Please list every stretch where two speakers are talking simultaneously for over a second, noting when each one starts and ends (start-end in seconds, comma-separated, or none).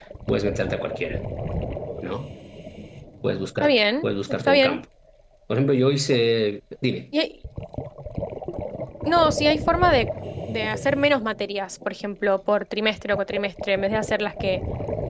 3.6-4.8